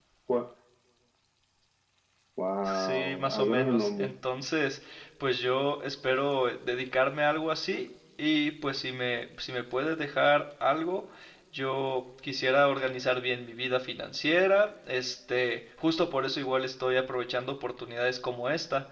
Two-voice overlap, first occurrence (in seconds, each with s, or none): 2.6 s